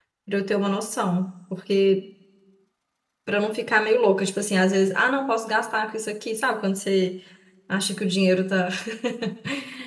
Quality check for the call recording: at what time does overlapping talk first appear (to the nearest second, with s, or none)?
none